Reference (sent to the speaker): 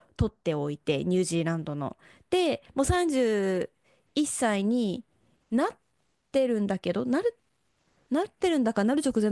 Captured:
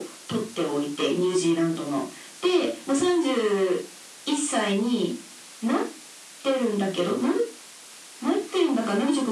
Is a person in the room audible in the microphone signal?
No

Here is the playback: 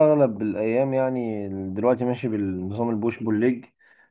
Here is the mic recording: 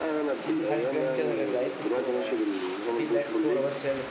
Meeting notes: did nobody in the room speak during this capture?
No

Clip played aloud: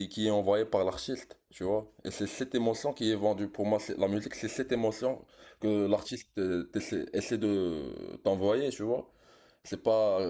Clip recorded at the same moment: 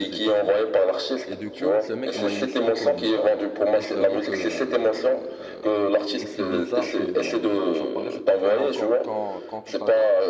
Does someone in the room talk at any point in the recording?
Yes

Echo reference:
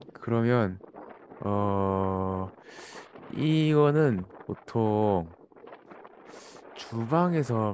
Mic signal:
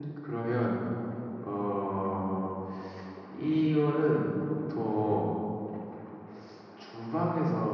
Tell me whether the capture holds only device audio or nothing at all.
Yes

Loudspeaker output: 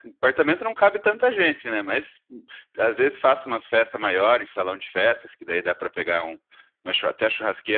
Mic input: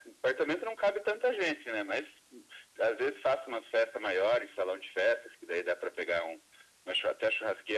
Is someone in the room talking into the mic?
No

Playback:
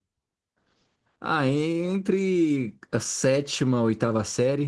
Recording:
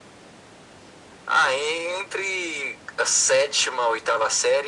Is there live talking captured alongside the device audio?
No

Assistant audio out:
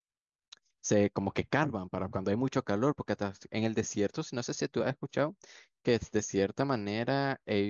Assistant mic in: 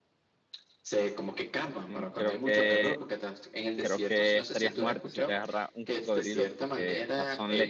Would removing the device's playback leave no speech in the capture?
No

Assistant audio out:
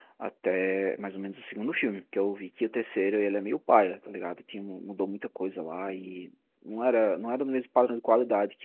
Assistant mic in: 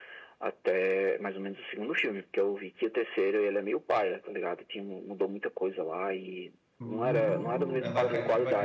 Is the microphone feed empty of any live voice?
No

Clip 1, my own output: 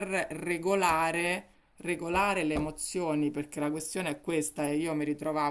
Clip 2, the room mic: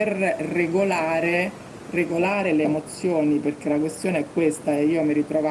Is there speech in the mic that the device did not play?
No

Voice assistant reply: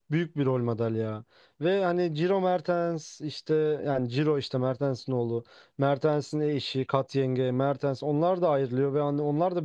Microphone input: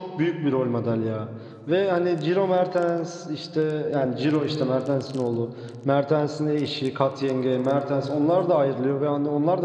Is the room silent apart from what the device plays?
Yes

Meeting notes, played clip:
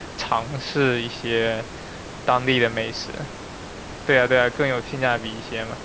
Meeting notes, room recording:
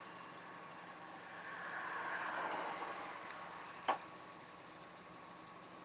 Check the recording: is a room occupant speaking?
No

